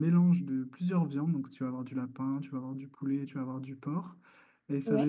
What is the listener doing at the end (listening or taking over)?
listening